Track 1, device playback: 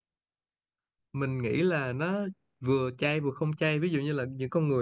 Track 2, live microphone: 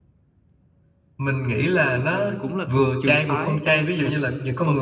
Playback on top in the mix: Yes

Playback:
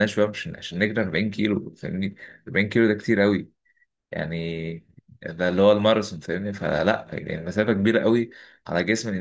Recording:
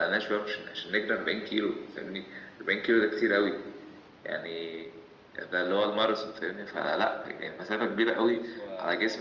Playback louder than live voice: Yes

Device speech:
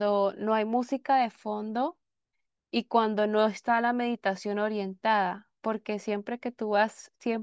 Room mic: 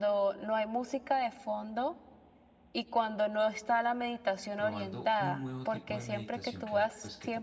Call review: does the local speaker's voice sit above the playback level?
No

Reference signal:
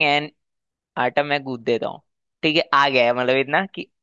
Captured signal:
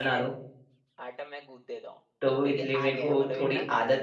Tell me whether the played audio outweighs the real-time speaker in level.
No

